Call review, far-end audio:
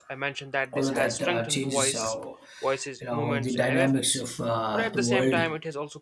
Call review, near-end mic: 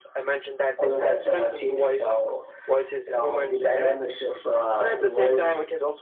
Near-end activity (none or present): none